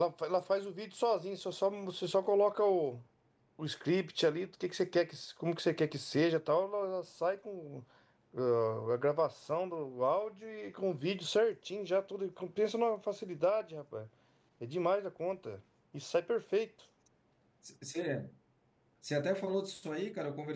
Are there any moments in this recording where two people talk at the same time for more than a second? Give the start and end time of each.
none

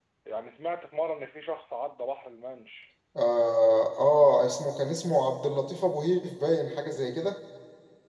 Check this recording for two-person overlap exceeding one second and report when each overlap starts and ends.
none

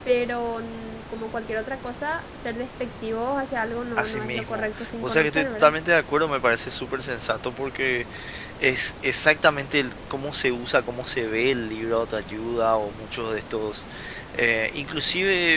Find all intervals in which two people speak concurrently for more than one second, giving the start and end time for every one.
4.0-5.7

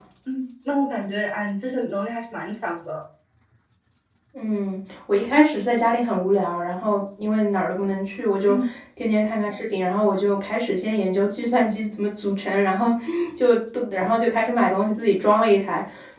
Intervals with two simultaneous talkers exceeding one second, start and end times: none

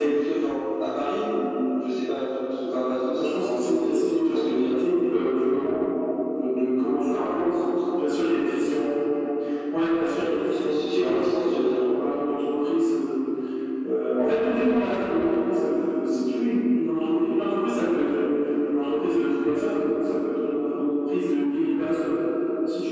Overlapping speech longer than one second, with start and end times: 3.1-5.0, 10.5-11.9

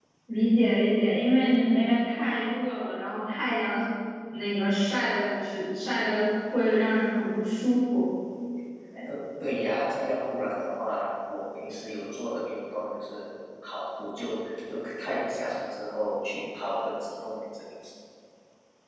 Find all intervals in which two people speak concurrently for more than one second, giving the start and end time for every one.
none

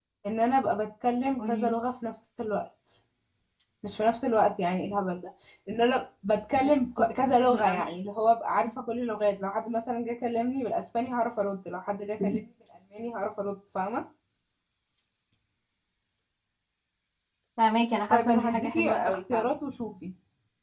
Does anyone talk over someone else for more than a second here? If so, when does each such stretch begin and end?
18.1-19.5

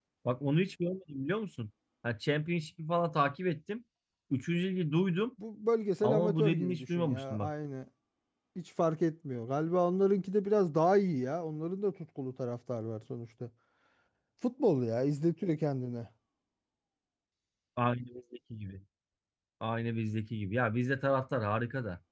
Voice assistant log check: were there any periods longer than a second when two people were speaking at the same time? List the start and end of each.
6.0-7.5

